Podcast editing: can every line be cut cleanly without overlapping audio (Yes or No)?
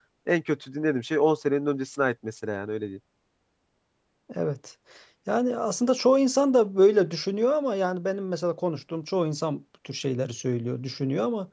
Yes